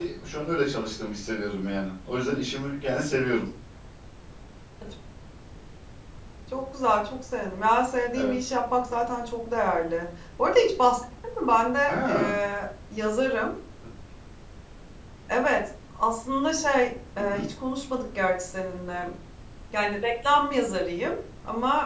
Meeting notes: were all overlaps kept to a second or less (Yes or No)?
Yes